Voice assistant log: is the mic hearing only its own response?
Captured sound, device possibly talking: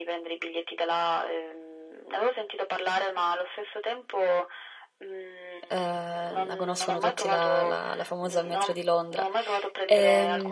No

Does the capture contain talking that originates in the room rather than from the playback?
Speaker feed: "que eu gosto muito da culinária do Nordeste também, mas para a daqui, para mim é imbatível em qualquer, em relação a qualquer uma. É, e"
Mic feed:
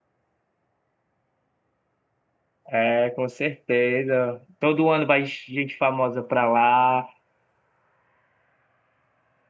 Yes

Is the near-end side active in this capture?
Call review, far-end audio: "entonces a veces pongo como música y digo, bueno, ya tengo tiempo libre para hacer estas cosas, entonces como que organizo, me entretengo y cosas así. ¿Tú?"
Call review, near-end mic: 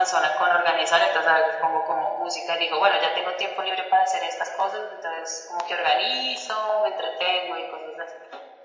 No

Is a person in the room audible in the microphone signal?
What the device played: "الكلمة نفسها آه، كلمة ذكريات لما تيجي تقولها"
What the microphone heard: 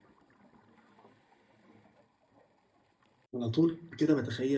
Yes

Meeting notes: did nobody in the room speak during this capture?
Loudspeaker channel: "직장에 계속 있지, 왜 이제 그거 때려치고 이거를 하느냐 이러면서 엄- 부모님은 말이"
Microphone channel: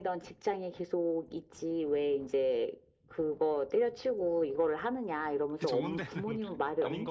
No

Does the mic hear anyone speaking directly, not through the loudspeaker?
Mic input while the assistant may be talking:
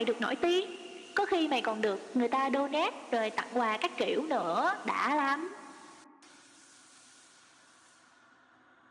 No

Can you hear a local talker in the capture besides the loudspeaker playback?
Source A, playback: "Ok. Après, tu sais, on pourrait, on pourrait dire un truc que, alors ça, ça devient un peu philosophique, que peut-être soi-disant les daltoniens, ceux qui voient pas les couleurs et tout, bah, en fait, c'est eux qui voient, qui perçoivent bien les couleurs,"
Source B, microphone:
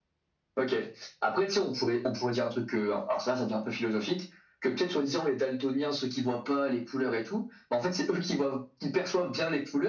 No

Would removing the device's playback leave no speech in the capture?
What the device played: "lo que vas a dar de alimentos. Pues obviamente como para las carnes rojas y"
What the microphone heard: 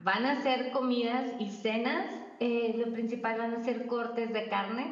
No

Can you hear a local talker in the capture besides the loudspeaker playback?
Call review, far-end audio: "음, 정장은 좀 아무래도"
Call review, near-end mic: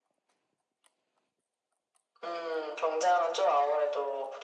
No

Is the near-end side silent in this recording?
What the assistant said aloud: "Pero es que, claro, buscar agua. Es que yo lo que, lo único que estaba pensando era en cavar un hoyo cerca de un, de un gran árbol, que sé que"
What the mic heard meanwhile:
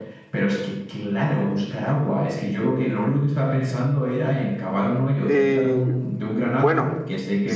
No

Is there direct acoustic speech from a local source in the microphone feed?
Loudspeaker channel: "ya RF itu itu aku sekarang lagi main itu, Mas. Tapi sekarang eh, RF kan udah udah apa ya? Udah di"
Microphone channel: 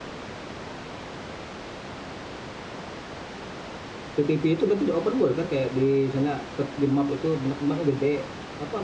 Yes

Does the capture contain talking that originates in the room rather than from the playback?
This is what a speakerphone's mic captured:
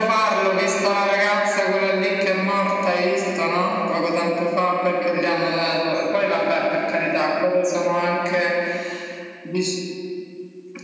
No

